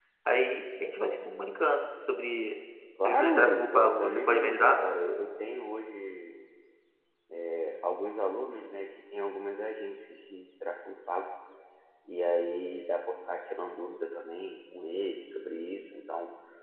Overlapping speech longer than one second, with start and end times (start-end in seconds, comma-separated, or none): 3.0-4.8